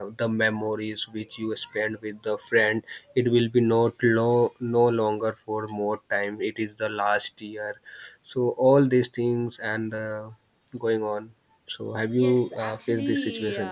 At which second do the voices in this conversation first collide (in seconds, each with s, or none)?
12.2 s